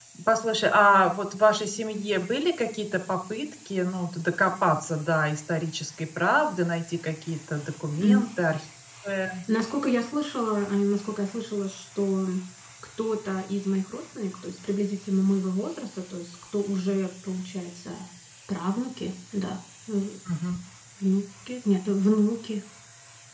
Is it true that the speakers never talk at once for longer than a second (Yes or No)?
Yes